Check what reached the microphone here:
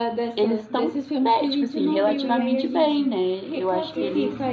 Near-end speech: present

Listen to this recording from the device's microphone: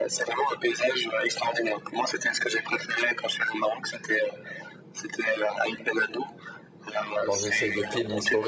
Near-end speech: present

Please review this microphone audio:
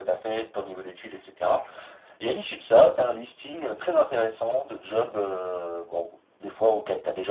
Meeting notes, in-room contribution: none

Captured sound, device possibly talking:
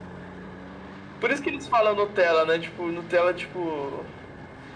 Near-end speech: none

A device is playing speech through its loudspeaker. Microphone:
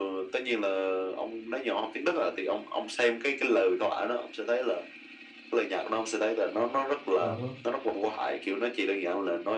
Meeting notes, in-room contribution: present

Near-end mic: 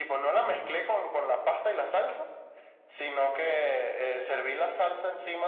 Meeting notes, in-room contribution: present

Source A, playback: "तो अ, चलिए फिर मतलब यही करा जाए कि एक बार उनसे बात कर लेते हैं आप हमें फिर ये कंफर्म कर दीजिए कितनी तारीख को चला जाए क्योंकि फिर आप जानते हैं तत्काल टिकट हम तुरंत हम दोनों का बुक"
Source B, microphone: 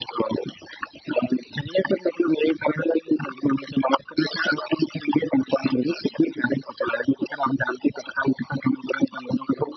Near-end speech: none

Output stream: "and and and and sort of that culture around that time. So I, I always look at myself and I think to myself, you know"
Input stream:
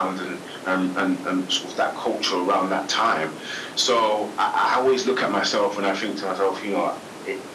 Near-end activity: none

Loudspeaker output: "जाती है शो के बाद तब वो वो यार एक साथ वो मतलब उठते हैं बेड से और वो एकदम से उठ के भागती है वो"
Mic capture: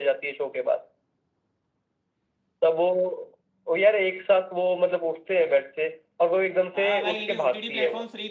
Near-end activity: present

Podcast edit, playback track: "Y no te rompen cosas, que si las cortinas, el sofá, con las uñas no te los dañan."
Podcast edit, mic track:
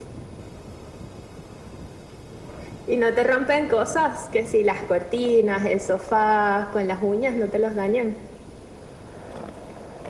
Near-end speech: none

